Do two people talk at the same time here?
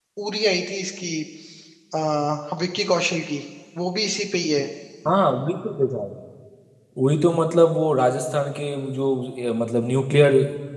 No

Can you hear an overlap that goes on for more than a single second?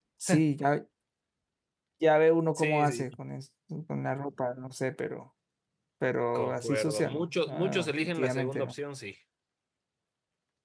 Yes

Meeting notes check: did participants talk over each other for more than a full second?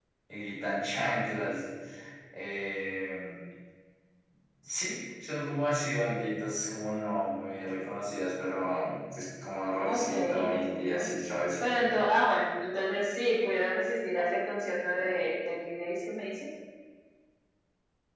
Yes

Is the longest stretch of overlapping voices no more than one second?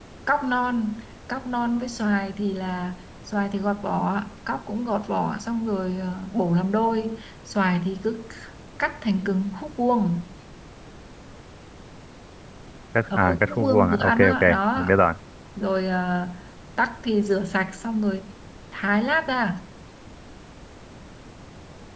No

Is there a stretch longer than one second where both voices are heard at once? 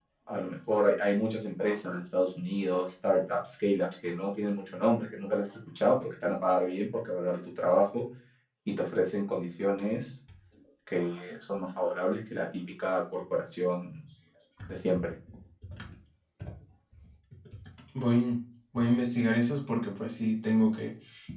No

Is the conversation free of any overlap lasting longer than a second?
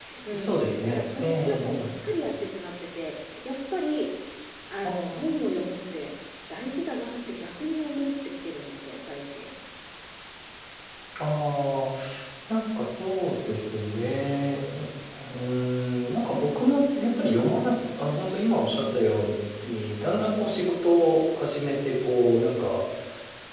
No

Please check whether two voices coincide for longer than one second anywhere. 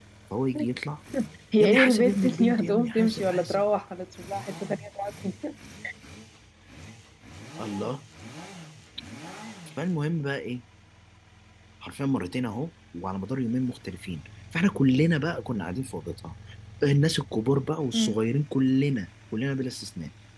Yes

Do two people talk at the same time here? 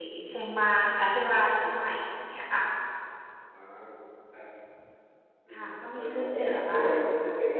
Yes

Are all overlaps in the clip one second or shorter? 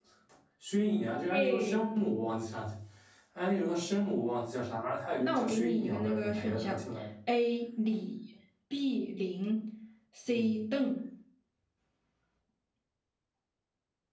No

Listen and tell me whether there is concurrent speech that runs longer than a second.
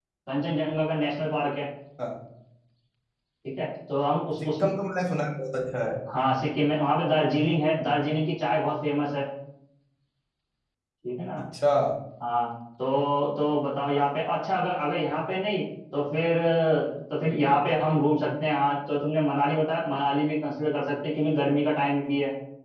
No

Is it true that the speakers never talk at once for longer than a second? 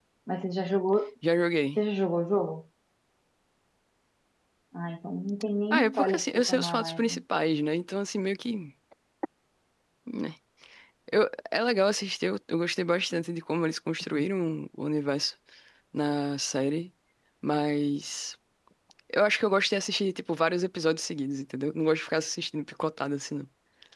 No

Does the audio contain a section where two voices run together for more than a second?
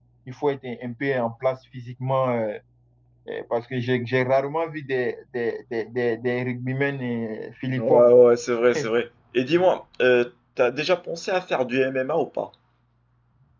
No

